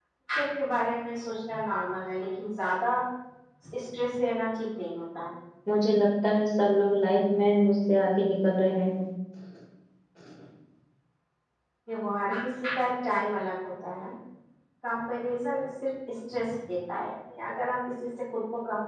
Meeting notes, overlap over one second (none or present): none